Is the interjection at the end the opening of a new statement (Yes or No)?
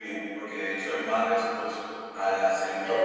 Yes